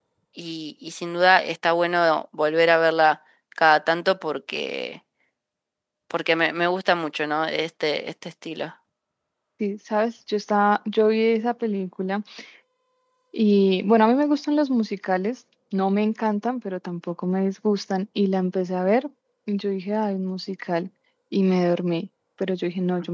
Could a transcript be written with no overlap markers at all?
Yes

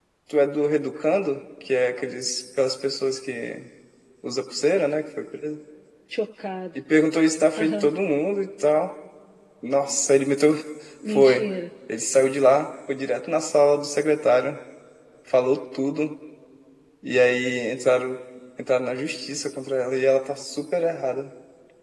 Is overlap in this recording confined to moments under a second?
Yes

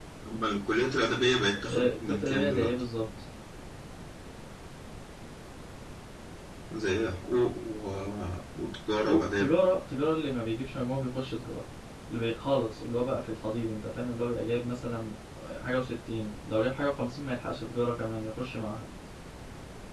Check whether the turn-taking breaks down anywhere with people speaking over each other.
Yes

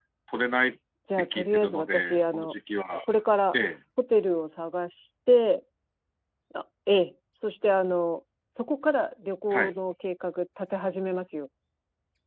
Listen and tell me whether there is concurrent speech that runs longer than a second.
Yes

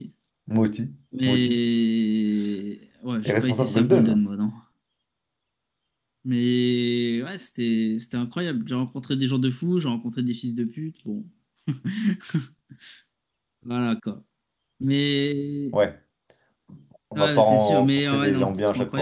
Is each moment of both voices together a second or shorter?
No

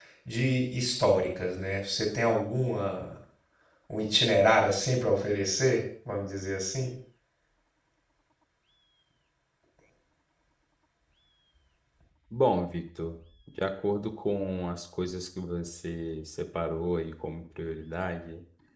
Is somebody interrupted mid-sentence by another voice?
No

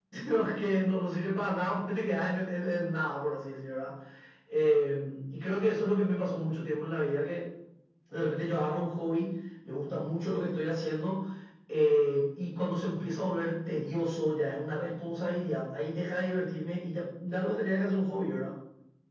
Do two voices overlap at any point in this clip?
No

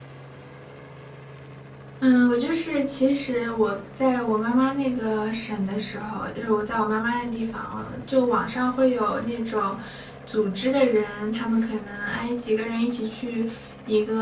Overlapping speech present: No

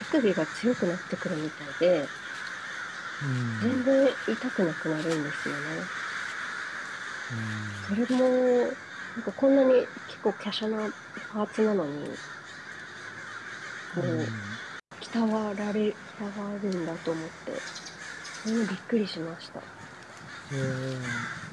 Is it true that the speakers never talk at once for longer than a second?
Yes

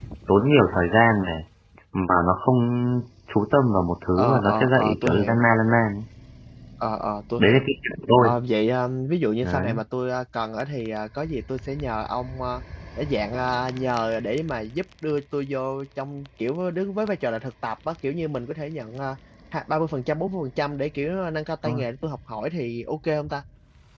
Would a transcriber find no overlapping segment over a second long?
No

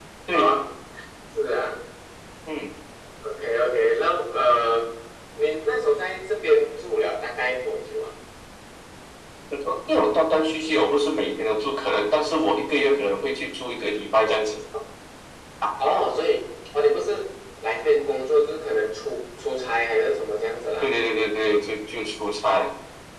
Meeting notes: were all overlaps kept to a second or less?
Yes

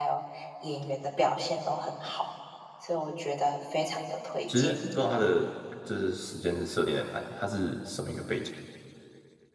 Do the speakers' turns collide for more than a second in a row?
No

